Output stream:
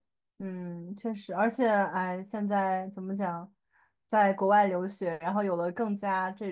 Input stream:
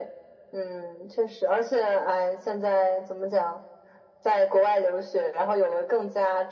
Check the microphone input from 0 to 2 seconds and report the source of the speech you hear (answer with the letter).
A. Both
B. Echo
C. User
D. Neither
B